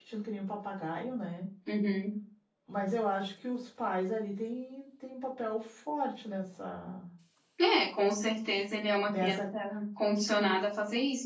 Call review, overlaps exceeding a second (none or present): none